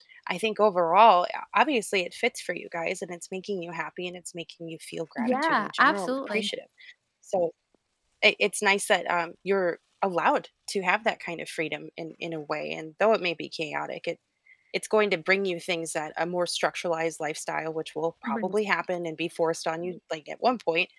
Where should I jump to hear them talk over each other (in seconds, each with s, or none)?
5.2 s